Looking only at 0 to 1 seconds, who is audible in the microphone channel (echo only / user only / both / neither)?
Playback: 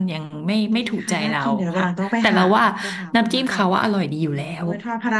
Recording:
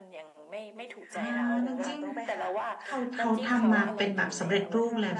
echo only